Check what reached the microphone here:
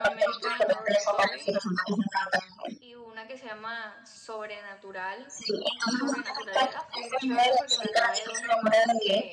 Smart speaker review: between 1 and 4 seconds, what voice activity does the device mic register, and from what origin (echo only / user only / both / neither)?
both